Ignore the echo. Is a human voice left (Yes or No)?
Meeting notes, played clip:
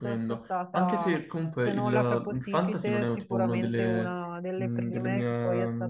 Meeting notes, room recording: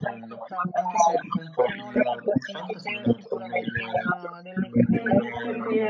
Yes